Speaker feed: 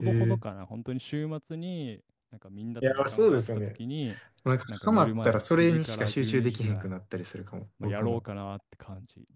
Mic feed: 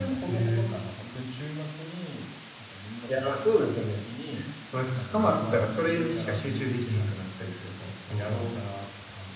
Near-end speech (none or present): none